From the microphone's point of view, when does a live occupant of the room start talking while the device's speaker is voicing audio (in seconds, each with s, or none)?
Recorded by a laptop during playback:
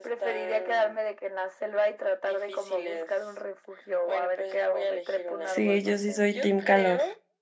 5.5 s